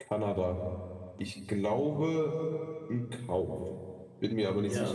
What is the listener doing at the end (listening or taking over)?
taking over